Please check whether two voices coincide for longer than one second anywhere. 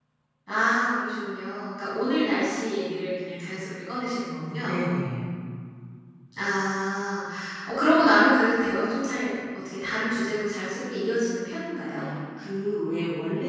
No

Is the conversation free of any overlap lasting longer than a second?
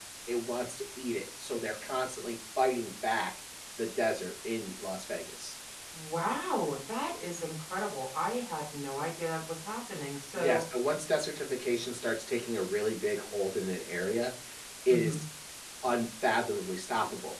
Yes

